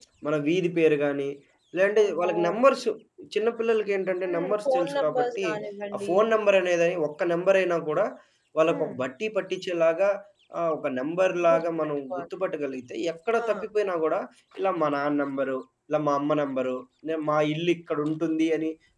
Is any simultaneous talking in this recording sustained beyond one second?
Yes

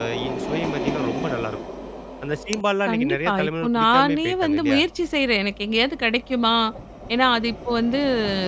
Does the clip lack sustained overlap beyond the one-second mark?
No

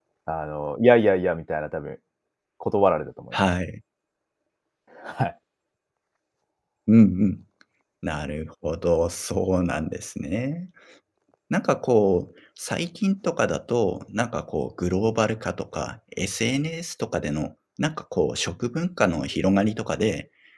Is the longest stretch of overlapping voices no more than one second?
Yes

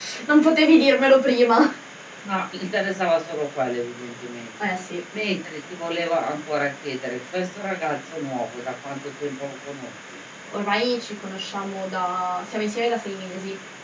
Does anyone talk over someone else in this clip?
No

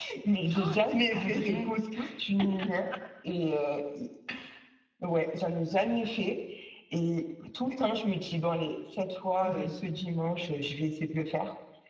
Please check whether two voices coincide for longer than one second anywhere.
Yes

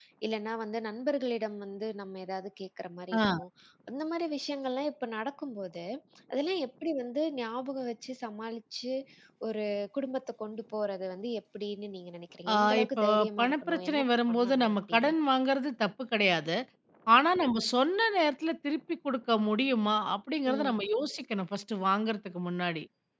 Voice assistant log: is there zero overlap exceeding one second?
No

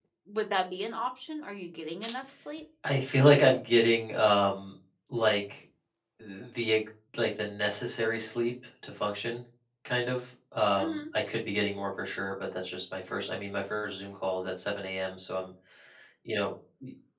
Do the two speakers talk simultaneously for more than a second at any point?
No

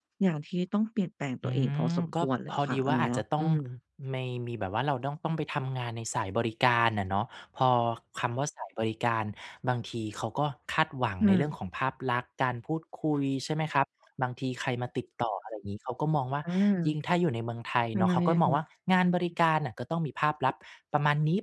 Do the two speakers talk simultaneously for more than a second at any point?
Yes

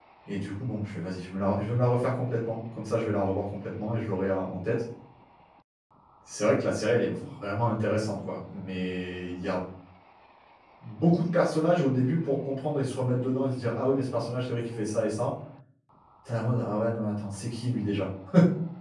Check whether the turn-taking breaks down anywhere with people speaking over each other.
No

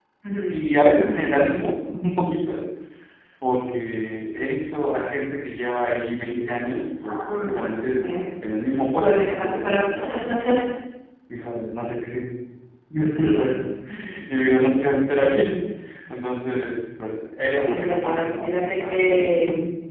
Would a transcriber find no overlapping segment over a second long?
No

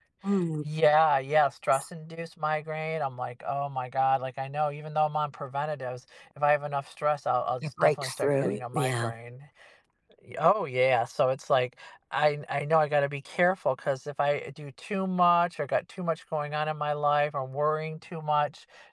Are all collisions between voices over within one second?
No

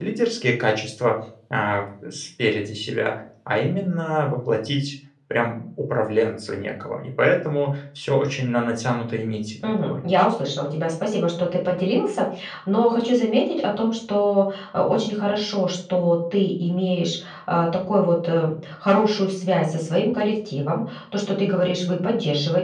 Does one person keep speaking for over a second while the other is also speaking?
No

